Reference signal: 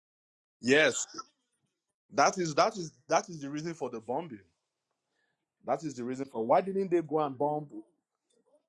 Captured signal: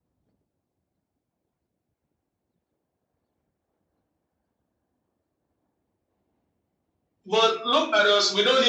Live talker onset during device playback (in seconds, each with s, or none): 7.2 s